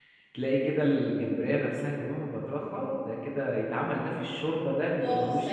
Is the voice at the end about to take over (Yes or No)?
Yes